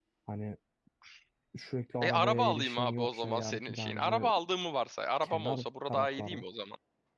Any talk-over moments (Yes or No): Yes